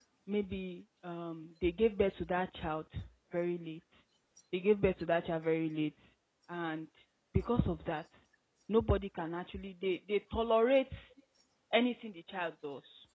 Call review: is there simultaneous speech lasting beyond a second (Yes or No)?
No